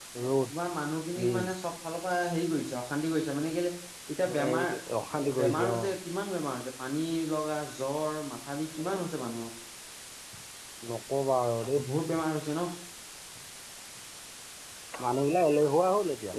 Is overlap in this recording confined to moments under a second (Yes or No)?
Yes